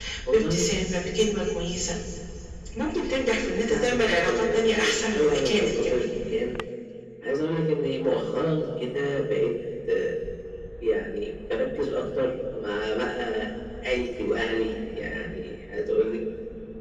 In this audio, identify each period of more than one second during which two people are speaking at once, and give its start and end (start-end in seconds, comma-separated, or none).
3.7-6.1